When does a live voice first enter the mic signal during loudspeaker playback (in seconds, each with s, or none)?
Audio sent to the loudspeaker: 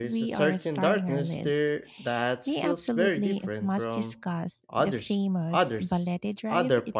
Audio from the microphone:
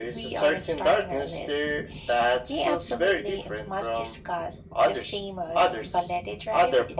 none